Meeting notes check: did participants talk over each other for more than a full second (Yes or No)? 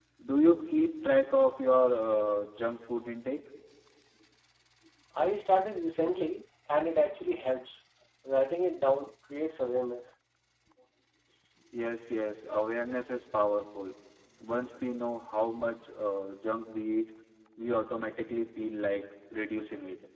No